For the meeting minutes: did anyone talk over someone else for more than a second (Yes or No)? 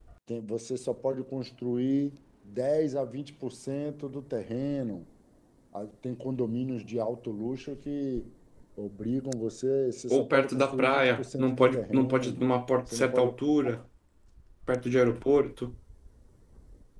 Yes